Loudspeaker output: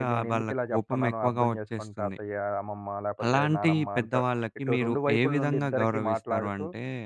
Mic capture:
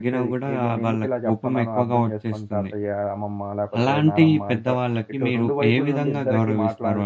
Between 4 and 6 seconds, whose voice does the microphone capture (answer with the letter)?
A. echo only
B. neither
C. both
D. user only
A